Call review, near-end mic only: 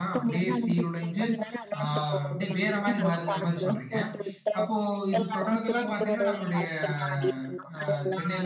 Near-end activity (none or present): present